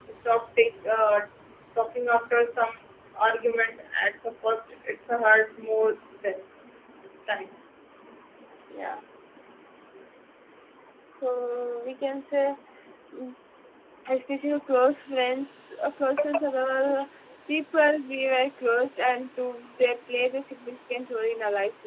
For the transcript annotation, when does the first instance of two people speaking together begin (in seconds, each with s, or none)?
none